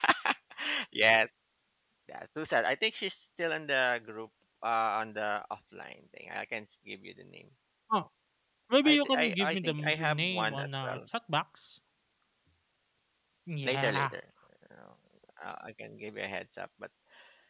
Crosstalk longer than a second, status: present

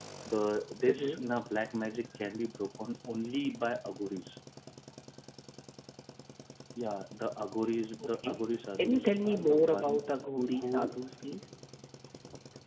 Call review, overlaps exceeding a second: present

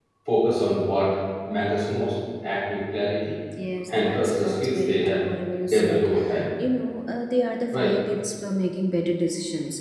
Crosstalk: present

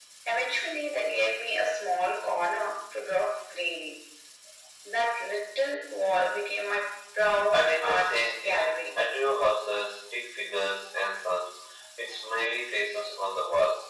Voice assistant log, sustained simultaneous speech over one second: present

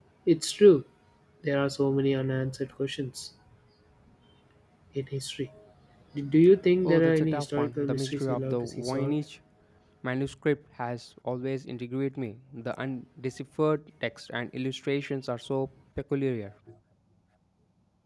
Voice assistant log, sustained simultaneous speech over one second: present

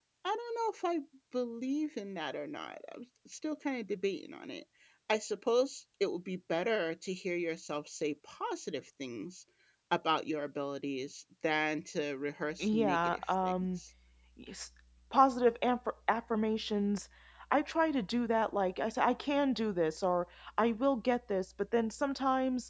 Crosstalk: present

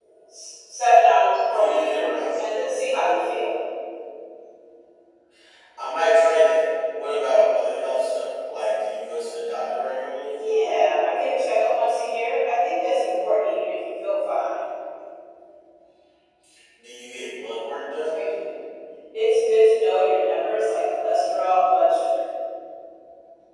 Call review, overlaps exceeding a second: none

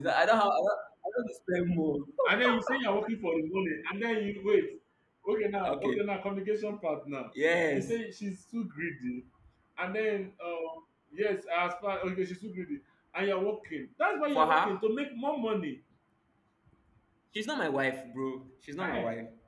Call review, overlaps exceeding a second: none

